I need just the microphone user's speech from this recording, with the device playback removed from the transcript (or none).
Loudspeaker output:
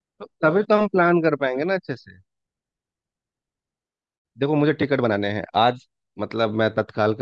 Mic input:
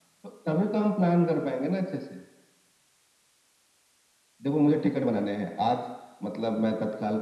none